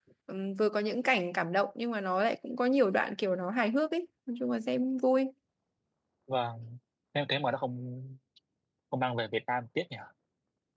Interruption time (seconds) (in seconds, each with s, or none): none